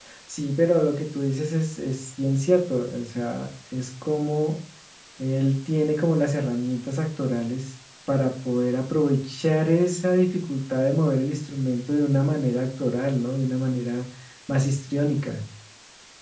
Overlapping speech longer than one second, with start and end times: none

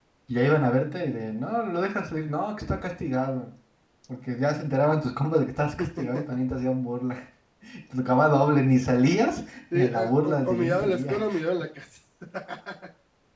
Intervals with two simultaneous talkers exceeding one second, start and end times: 9.7-11.2

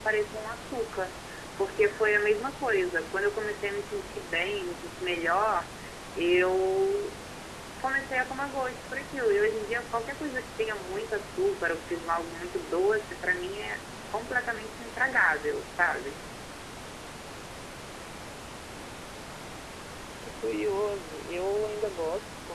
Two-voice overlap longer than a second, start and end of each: none

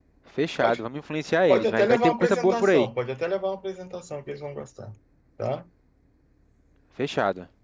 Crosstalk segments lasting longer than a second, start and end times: 1.5-2.9

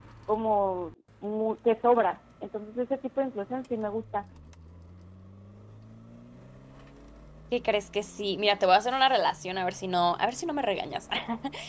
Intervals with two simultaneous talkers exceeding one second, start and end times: none

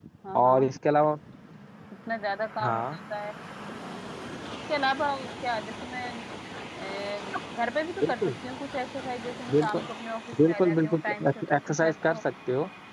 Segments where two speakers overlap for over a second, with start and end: 10.5-12.2

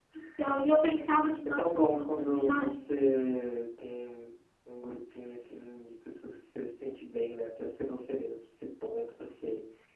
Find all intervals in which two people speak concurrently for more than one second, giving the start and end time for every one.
1.4-2.8

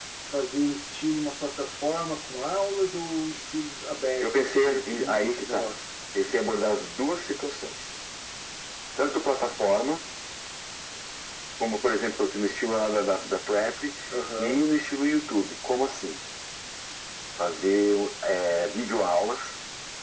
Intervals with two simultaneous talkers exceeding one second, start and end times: 4.2-5.7

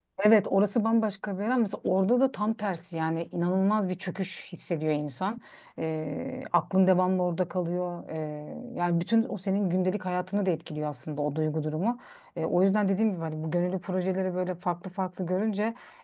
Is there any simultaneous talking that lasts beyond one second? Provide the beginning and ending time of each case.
none

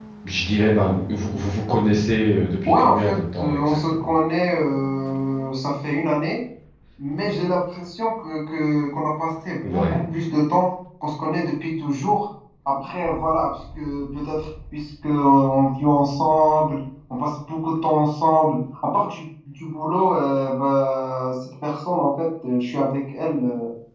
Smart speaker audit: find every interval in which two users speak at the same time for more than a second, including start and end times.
2.7-4.1

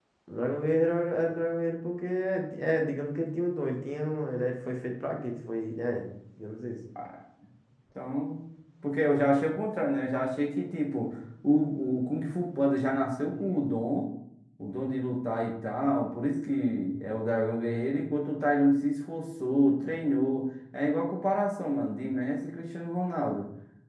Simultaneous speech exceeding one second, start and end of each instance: none

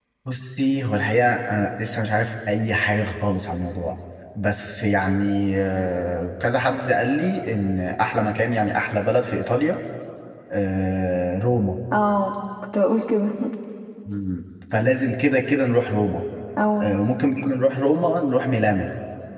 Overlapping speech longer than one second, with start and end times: none

